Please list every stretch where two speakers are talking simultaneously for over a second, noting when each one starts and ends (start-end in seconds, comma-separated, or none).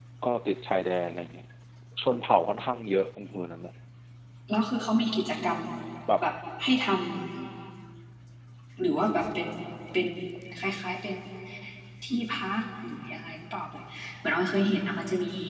none